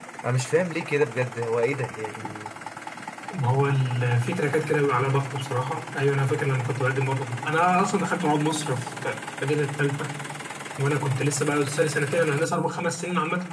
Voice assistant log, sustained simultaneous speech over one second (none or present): none